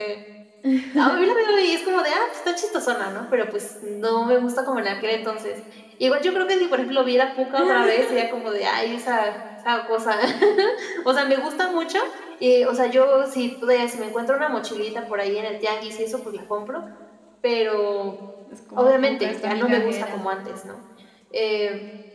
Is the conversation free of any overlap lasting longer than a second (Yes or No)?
No